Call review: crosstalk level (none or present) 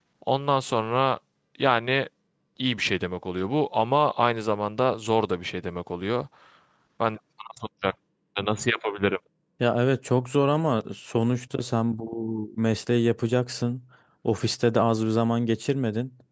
none